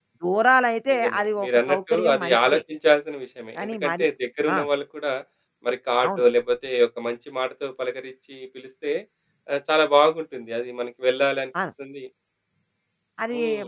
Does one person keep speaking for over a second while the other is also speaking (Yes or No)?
Yes